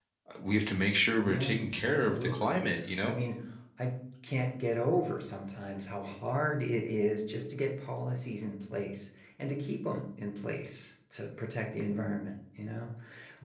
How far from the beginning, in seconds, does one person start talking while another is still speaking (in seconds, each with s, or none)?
1.3 s